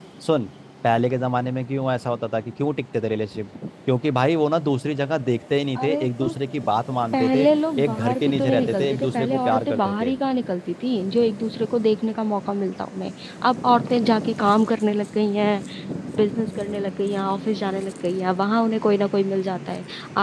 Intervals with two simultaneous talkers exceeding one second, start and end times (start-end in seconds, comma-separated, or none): 7.8-10.1